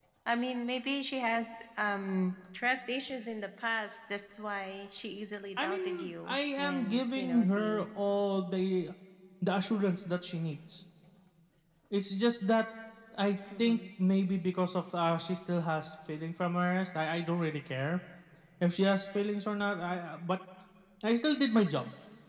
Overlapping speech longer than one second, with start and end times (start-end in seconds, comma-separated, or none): 5.6-7.8